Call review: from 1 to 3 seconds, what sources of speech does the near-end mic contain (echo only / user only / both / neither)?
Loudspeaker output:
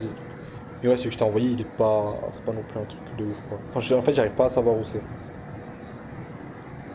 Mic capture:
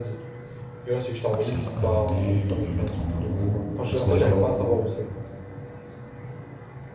both